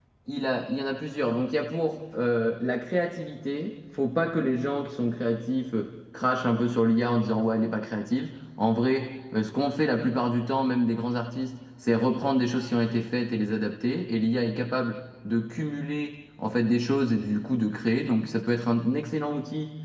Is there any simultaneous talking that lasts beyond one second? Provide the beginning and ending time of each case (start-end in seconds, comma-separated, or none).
none